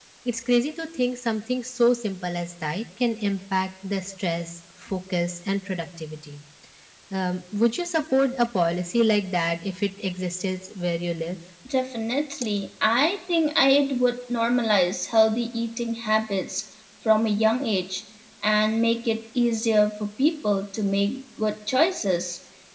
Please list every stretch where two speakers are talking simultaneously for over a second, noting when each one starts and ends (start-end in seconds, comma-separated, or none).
none